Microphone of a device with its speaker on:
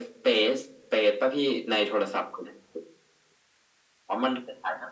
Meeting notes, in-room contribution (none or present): none